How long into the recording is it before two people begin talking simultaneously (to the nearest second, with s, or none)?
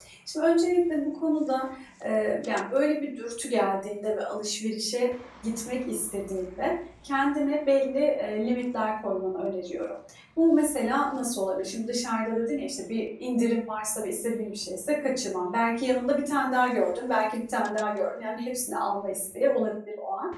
none